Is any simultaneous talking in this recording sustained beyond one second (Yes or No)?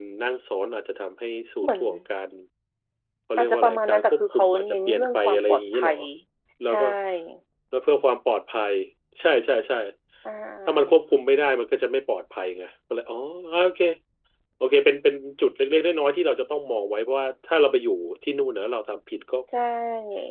Yes